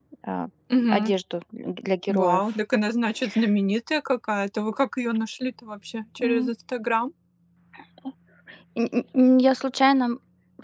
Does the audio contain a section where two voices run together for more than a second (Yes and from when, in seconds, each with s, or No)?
No